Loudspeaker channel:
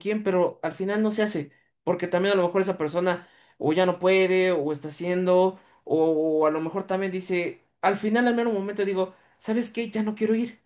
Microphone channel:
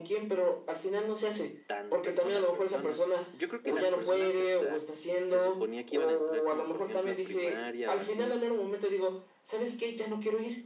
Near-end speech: present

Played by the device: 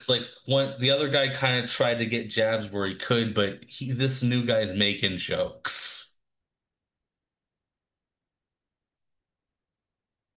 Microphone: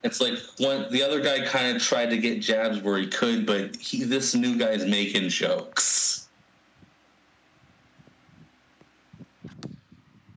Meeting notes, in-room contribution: none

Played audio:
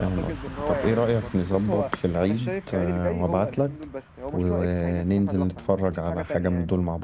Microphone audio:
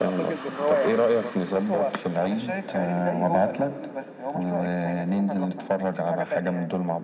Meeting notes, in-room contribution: none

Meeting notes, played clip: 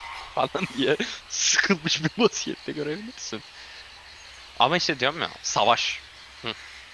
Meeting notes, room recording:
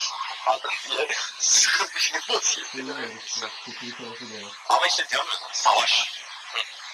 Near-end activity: present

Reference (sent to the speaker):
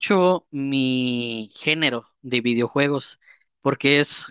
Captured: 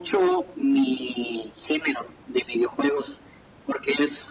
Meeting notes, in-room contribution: none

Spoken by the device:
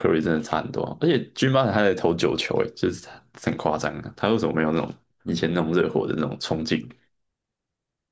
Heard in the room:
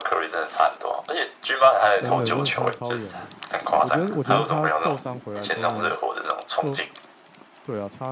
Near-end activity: present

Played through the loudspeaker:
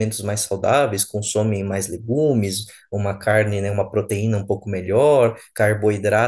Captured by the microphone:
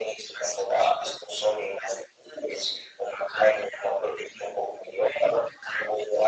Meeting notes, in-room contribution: none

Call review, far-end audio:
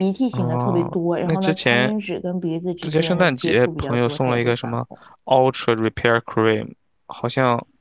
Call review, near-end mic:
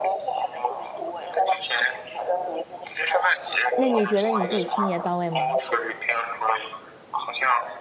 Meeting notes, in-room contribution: present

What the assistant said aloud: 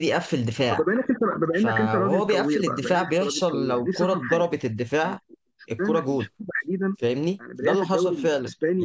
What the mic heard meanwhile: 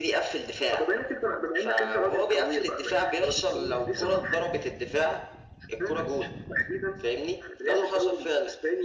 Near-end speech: none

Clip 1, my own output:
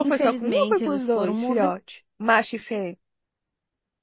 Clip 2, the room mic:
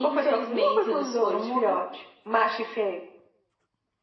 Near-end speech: none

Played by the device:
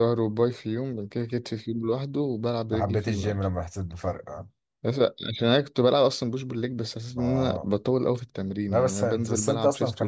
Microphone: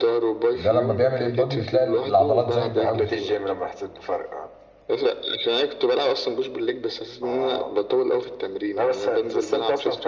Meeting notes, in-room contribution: present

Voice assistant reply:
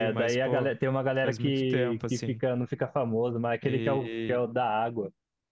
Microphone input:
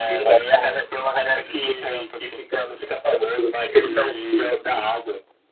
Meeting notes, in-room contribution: none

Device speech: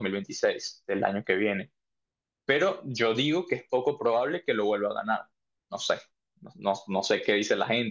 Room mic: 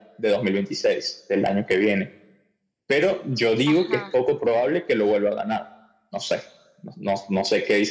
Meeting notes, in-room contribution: present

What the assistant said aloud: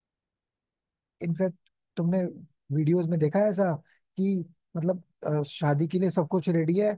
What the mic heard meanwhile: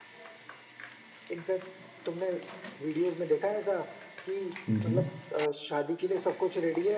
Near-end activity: present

